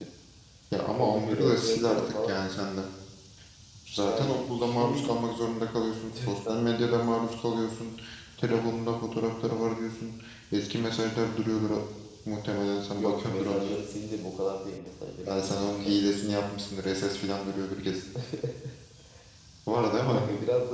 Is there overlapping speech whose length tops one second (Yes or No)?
Yes